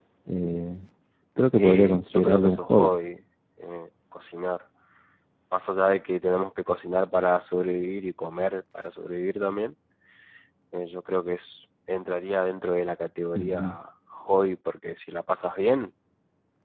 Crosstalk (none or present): present